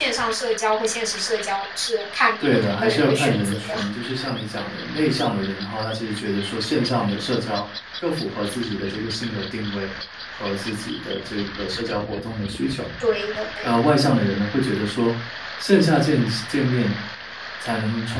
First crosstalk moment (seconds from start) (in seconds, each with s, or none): 2.4 s